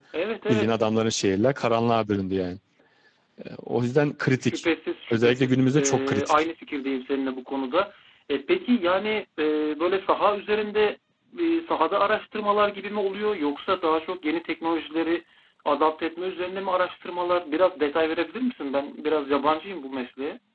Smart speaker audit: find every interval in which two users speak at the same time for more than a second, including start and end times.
5.1-6.4

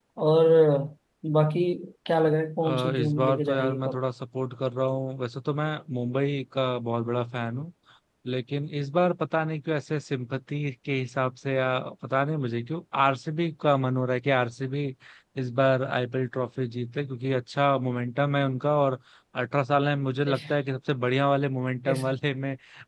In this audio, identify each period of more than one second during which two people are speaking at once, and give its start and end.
2.6-4.0

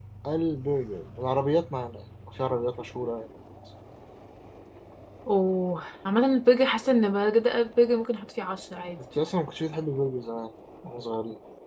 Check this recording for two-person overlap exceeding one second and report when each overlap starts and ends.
none

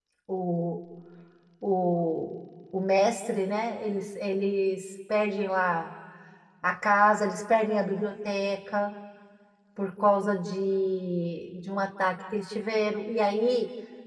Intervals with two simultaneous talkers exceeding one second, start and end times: none

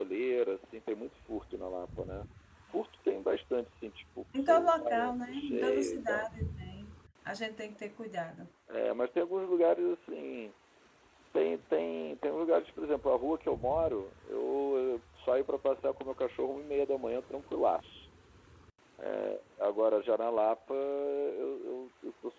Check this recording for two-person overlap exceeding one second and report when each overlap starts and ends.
4.4-6.3

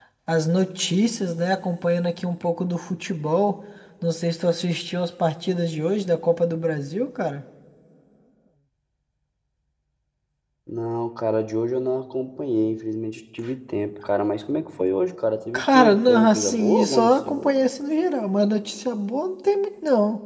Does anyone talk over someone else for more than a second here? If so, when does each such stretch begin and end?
15.5-17.6

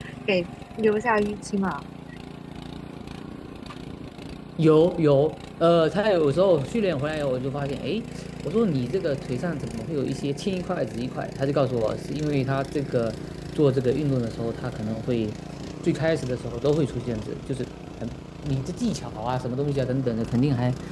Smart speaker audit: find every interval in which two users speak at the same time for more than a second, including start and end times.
none

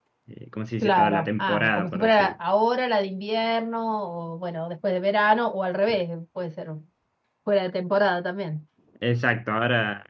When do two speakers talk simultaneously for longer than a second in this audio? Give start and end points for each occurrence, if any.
0.8-2.4

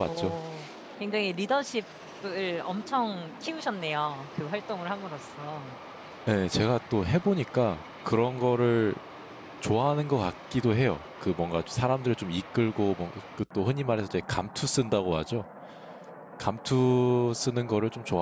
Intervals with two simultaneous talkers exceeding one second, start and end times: none

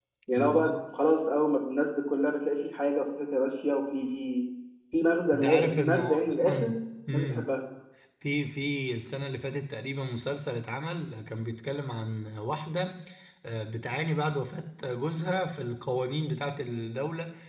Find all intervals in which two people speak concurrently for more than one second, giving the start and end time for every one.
5.3-6.7

